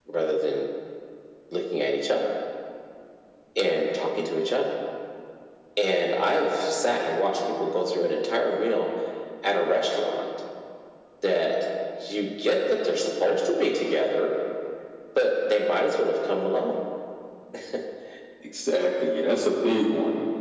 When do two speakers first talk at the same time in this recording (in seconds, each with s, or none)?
none